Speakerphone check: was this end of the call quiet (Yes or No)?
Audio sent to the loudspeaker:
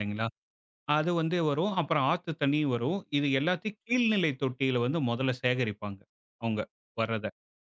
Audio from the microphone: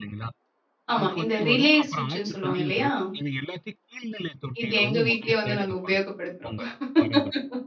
No